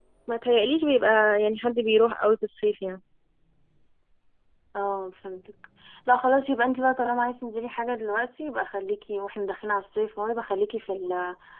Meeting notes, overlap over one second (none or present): none